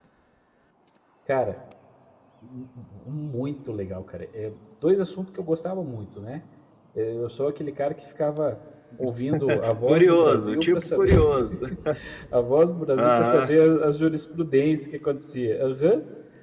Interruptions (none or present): present